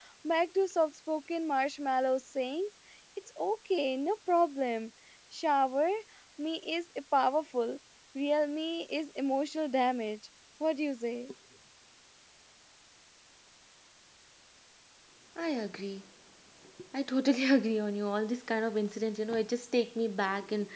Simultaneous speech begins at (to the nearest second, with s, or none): none